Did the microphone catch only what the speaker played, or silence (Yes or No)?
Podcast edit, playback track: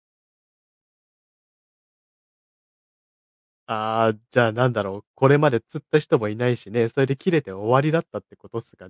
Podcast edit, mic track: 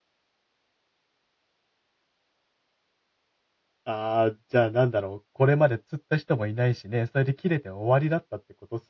Yes